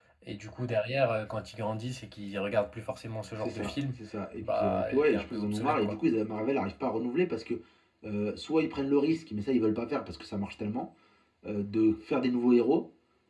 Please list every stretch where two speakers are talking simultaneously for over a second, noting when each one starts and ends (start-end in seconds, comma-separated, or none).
4.4-6.0